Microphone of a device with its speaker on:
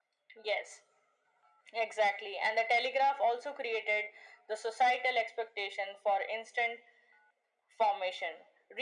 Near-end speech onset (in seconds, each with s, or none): none